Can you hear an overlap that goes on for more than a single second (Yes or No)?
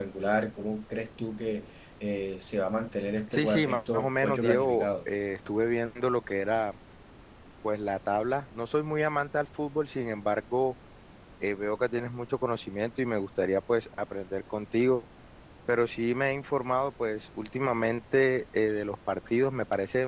Yes